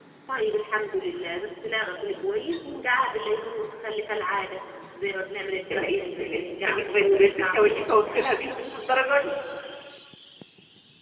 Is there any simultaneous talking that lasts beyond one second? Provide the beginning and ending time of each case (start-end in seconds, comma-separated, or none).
5.7-8.3